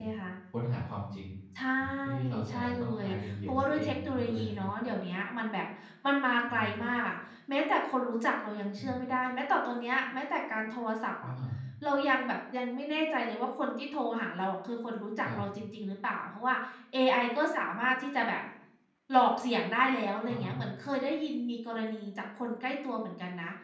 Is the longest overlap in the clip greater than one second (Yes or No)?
Yes